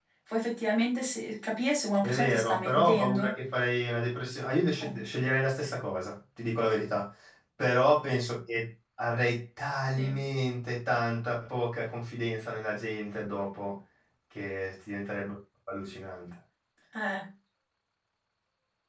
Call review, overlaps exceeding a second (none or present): present